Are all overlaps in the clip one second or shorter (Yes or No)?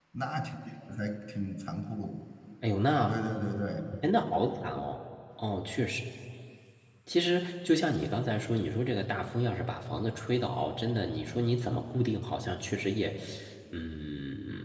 Yes